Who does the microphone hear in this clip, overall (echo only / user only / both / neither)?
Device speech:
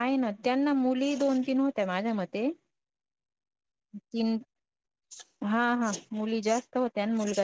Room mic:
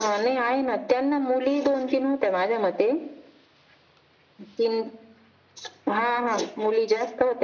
echo only